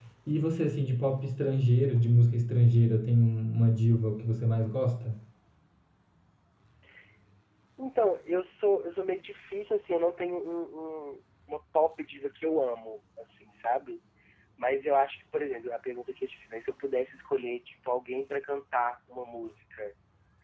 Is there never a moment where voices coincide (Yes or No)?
Yes